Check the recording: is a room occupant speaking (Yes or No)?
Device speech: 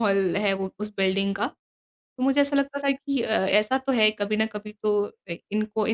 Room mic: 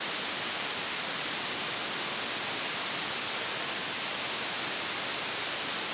No